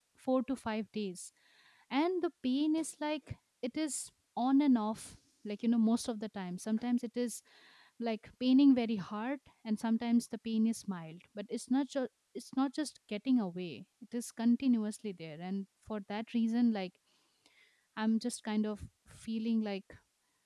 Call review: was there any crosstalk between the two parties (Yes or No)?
No